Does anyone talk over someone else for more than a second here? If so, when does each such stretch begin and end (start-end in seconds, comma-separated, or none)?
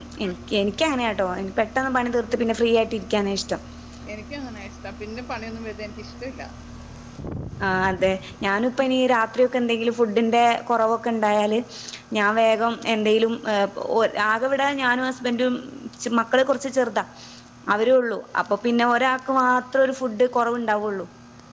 none